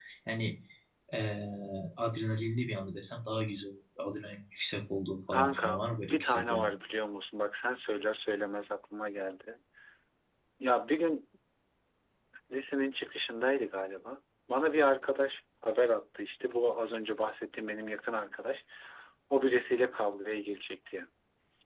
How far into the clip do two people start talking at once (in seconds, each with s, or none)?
5.3 s